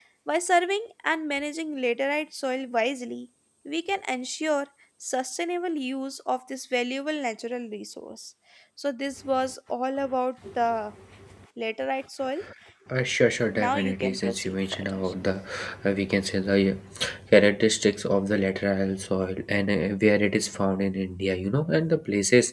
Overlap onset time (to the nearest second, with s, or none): 14 s